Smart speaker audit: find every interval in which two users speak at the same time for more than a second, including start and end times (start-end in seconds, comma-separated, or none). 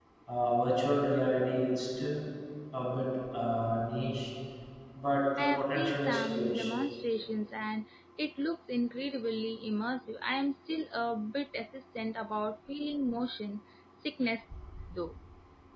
5.4-6.7